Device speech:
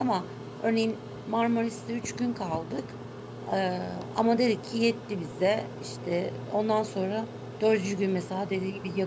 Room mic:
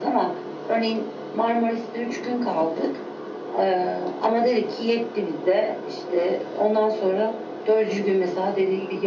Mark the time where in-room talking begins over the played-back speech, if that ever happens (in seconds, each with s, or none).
none